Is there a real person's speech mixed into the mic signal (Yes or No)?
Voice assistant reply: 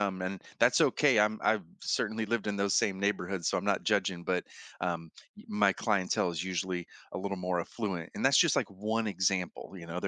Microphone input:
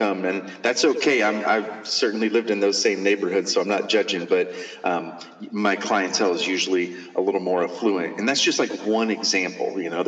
No